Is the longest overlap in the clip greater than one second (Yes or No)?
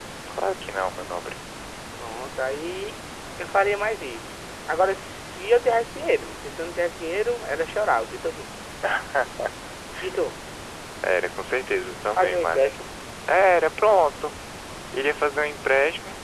No